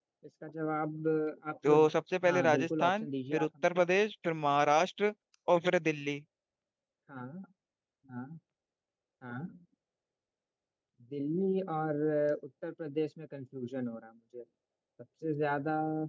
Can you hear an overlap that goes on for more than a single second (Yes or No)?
Yes